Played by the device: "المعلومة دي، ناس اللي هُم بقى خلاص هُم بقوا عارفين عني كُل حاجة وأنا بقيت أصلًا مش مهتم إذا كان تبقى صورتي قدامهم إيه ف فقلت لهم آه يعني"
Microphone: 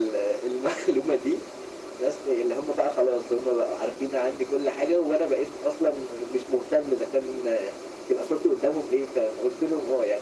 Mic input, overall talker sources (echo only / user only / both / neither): echo only